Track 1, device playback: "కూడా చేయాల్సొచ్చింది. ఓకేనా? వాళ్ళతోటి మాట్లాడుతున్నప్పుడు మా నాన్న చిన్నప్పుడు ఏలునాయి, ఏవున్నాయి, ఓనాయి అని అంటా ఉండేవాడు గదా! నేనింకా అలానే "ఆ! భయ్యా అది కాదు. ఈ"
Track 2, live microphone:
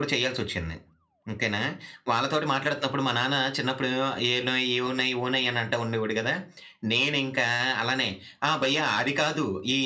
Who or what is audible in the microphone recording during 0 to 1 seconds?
echo only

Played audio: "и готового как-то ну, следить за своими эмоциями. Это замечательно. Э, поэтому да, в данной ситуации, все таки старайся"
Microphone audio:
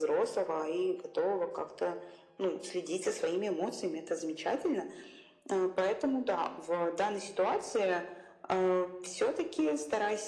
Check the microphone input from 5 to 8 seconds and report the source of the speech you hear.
echo only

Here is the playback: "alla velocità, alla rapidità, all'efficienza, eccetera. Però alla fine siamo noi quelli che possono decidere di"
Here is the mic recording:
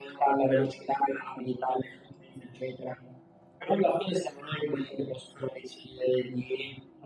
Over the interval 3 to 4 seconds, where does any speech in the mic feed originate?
echo only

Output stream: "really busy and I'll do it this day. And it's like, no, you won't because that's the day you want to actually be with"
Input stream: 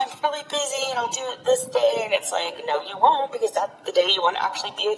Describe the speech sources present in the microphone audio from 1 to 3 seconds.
echo only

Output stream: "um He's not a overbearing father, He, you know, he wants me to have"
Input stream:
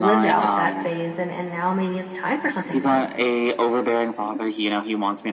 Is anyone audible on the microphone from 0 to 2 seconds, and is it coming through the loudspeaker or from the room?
both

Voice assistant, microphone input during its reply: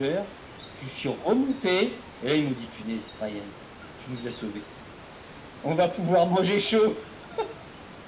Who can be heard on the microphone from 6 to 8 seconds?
echo only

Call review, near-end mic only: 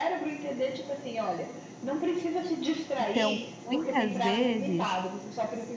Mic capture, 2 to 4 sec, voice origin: both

